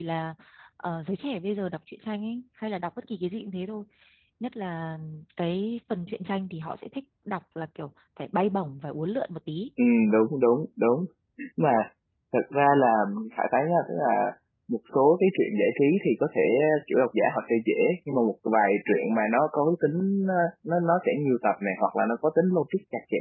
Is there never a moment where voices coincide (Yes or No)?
Yes